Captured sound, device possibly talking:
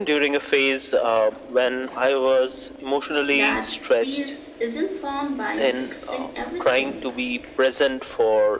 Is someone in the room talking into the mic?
Yes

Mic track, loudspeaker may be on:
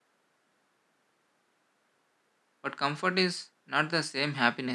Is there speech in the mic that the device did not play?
Yes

